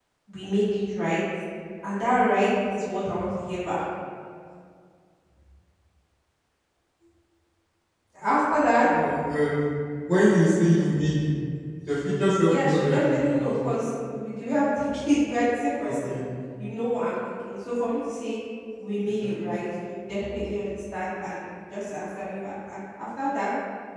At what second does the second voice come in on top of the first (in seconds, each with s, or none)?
12.4 s